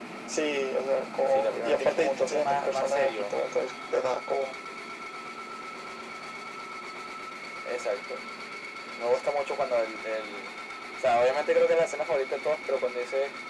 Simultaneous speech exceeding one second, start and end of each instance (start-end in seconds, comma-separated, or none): 1.3-3.3